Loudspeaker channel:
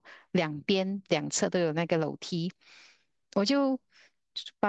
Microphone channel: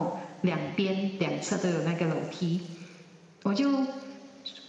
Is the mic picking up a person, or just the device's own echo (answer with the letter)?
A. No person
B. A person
A